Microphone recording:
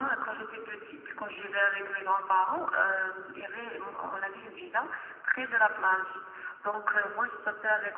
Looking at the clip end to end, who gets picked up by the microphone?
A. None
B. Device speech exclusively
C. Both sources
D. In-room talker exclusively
B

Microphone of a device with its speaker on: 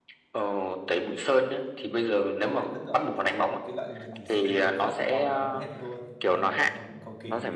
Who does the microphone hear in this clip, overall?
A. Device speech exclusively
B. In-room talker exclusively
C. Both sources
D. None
C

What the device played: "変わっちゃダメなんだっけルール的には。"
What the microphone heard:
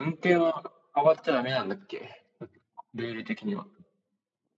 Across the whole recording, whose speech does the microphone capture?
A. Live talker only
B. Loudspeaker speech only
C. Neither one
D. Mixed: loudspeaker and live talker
B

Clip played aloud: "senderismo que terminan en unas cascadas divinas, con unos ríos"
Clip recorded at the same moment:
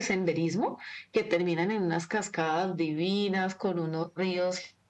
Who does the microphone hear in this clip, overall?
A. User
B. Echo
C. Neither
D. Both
B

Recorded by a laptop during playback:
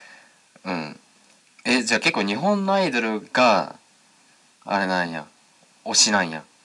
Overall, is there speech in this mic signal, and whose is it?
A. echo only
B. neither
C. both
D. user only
A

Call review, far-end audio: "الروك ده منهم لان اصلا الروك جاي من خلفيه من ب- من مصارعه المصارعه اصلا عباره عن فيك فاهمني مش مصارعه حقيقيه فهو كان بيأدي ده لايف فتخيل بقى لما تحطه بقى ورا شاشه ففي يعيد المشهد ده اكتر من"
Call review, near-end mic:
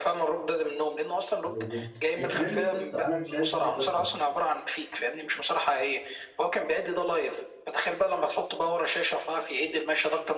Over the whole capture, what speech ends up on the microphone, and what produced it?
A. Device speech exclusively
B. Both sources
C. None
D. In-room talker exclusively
B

